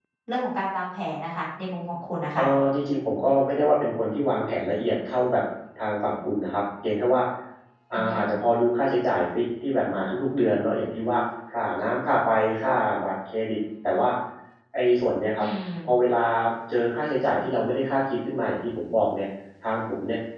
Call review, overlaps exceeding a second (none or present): none